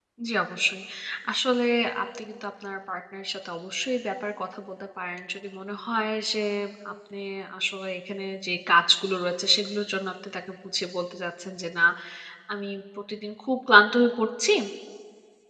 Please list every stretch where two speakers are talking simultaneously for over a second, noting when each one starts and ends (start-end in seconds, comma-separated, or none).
none